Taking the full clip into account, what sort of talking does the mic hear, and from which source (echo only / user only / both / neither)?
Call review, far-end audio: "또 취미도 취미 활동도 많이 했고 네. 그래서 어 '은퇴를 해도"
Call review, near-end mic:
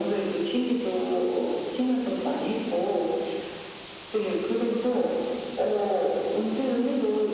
echo only